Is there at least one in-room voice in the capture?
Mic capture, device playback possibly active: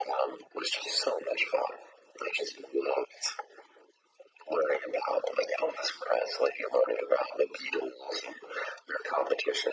No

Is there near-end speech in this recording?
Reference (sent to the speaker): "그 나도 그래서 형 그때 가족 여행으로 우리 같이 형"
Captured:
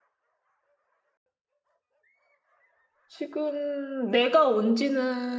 Yes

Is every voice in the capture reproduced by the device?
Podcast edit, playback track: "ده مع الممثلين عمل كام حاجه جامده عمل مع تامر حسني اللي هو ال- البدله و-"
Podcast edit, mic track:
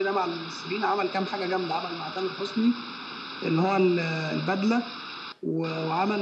Yes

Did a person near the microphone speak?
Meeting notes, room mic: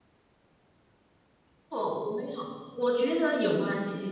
Yes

